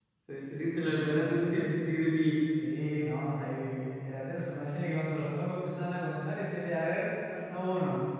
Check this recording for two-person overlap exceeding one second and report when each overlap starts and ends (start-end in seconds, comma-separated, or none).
none